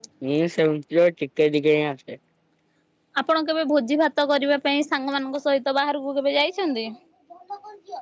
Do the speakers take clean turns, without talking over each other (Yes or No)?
Yes